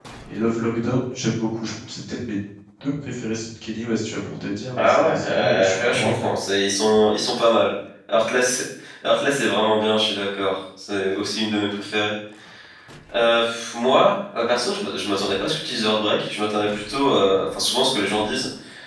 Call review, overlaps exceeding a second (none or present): present